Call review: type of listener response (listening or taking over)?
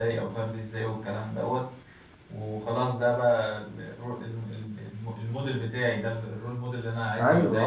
taking over